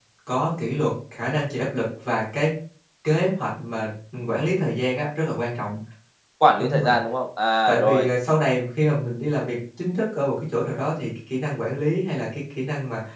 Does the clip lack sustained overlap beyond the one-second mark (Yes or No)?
Yes